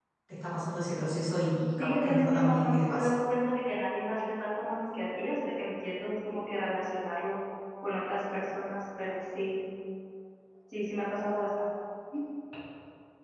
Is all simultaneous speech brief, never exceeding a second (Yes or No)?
No